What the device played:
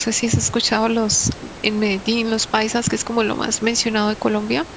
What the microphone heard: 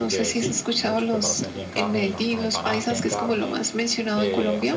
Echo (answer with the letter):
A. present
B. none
A